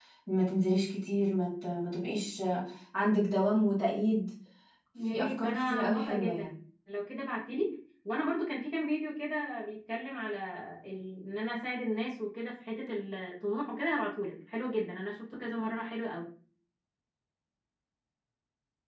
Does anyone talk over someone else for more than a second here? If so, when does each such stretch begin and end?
5.1-6.5

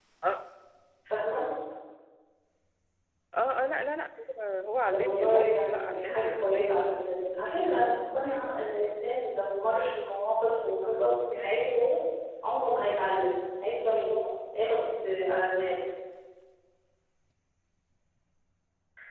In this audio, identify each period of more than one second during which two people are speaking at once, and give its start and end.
4.9-6.7

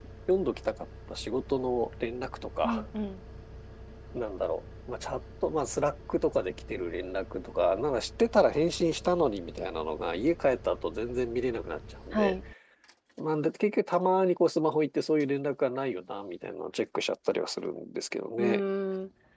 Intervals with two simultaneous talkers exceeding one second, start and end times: none

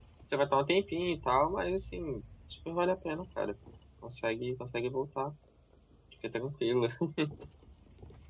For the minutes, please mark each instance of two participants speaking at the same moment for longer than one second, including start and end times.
none

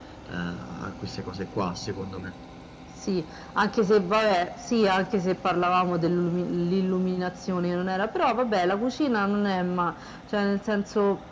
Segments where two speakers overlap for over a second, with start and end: none

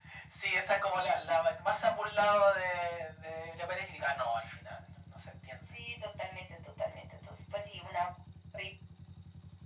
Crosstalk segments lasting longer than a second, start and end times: none

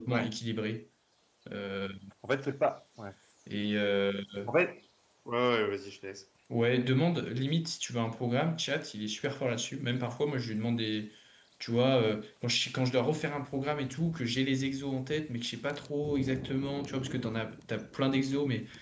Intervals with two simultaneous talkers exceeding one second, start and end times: none

